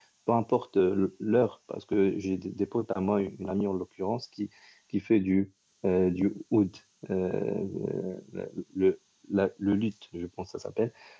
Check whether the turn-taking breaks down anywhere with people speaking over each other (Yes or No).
No